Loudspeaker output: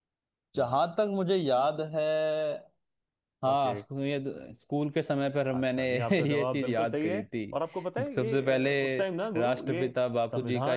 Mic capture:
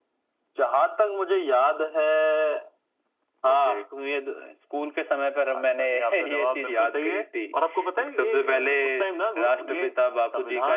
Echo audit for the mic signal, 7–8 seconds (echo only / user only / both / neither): echo only